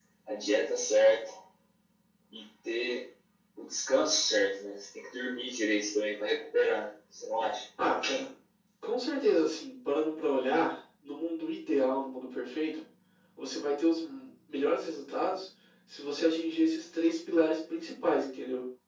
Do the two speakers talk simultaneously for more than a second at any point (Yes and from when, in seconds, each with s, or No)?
No